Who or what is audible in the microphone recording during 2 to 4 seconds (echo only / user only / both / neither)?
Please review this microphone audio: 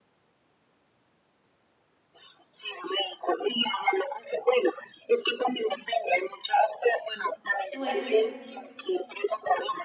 echo only